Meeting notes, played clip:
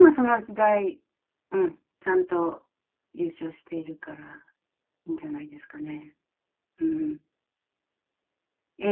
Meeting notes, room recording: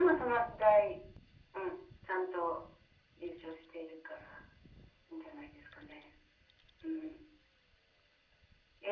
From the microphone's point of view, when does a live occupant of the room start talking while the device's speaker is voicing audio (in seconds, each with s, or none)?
none